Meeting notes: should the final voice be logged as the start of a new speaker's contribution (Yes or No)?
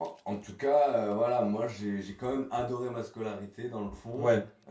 No